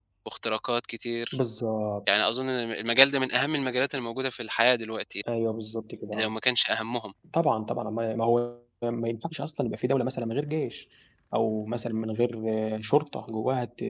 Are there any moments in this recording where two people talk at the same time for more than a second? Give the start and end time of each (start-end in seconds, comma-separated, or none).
none